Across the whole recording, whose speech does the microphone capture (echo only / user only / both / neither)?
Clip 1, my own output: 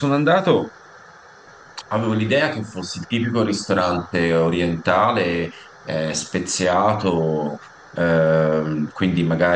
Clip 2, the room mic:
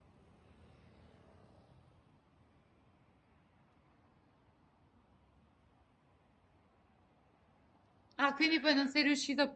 user only